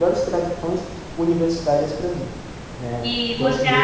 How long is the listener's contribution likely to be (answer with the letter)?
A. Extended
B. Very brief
A